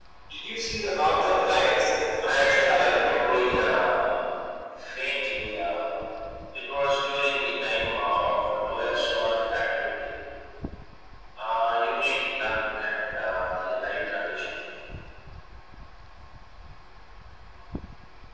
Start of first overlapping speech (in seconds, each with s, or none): 2.2 s